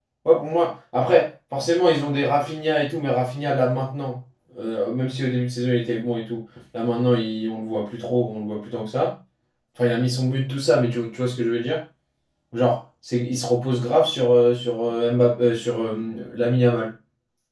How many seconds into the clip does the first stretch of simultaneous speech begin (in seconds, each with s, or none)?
none